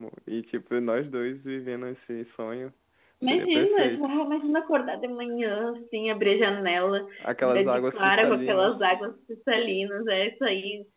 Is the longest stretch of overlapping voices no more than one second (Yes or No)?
No